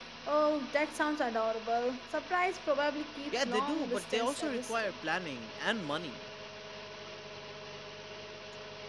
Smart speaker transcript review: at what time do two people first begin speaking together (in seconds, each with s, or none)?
3.3 s